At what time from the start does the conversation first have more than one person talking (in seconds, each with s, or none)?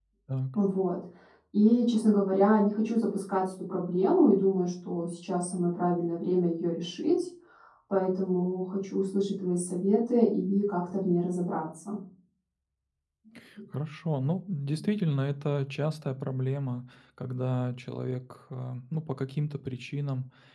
none